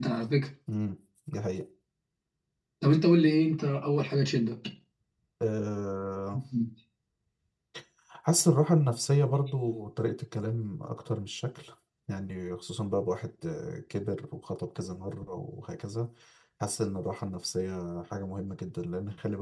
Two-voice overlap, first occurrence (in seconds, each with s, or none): none